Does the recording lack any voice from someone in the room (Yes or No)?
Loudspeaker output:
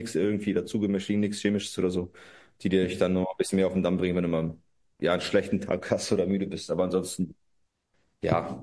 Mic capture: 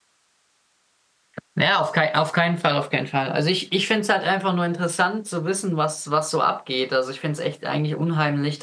No